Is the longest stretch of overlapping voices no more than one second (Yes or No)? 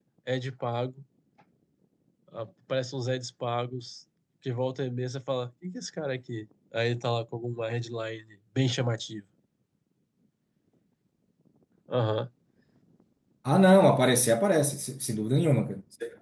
Yes